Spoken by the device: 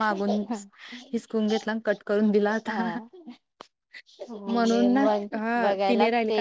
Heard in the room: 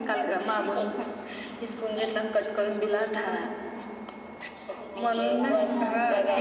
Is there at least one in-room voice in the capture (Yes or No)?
Yes